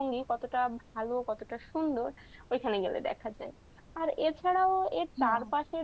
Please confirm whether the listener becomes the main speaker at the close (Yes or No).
No